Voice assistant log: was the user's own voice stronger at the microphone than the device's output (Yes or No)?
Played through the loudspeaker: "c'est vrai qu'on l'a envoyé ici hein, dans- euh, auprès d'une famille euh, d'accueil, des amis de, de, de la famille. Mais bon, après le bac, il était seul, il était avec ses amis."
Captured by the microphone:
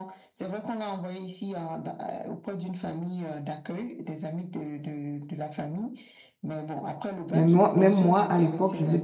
Yes